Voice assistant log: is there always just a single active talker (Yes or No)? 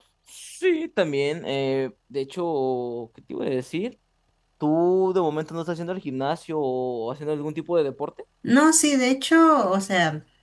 Yes